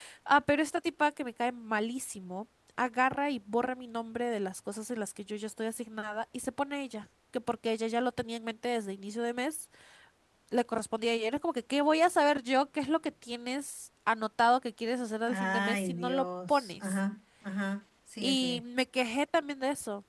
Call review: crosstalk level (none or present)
present